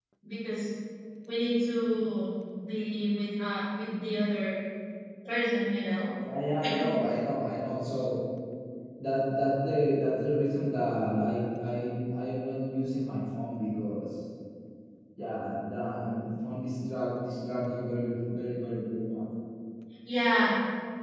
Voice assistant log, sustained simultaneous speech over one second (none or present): none